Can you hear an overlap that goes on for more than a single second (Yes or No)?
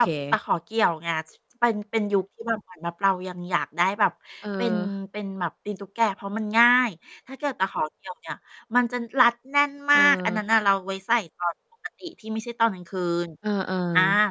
No